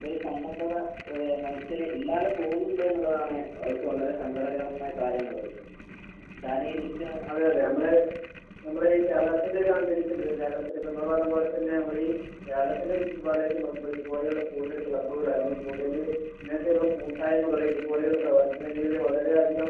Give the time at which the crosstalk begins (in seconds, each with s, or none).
none